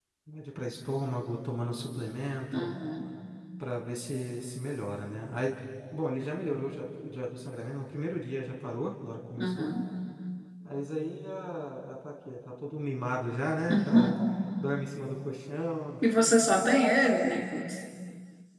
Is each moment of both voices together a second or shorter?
Yes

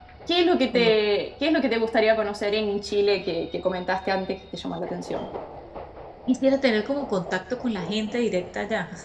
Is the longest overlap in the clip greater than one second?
No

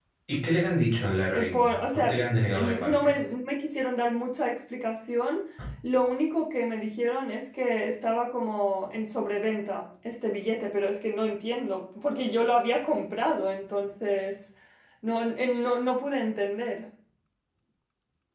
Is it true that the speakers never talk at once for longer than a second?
No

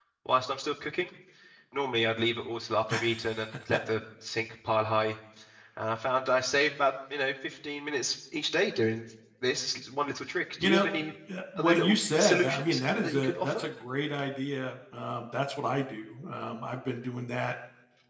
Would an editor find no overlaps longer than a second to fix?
No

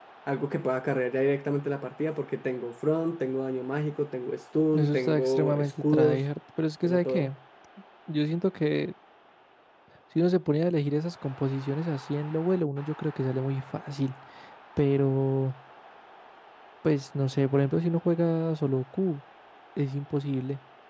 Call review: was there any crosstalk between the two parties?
Yes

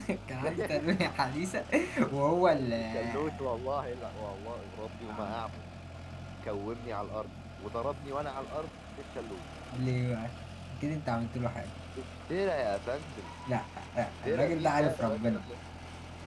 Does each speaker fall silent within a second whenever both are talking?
No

